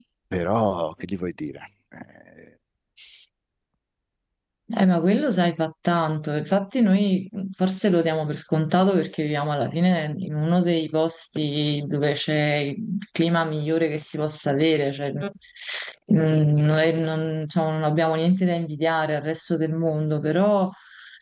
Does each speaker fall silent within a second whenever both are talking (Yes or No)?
Yes